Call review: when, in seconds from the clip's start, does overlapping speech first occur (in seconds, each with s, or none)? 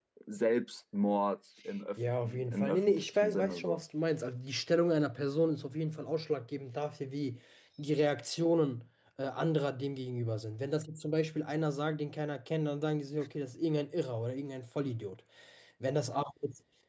2.0 s